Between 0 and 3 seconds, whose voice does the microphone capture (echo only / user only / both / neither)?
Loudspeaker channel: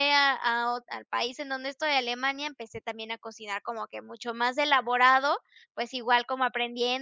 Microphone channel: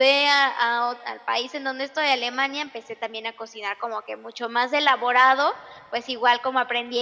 echo only